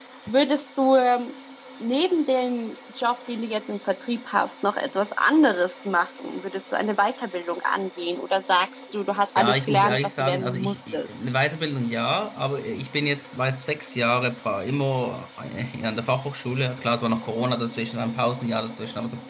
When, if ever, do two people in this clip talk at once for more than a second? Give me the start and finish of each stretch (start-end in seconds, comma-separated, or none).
9.4-11.1